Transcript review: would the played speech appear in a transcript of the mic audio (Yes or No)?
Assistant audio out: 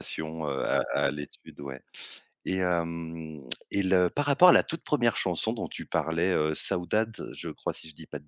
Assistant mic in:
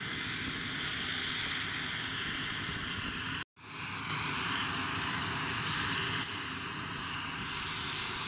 No